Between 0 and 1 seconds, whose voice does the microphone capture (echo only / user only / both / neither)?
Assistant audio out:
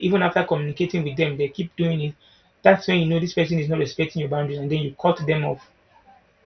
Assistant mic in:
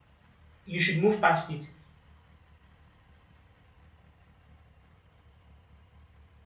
user only